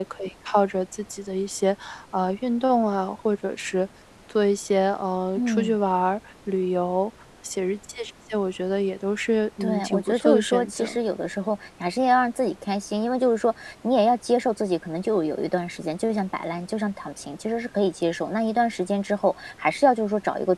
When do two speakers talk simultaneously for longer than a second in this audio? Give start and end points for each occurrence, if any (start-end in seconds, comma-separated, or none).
9.6-11.0